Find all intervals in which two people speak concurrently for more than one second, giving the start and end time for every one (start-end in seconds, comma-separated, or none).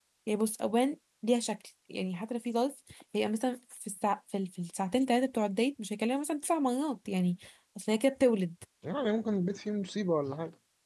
none